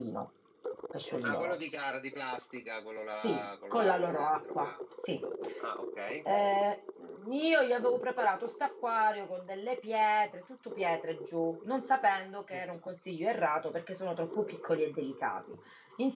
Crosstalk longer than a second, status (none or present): present